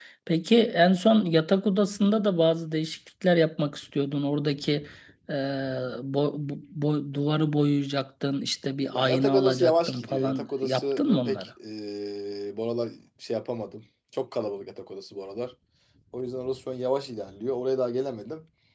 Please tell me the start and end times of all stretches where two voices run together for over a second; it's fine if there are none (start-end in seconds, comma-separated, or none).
8.9-11.5